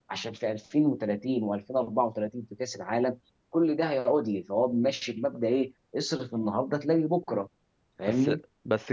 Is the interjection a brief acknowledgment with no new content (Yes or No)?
No